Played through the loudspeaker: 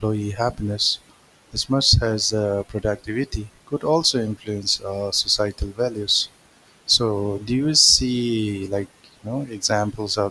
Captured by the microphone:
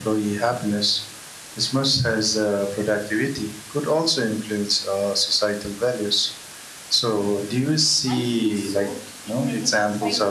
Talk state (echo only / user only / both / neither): both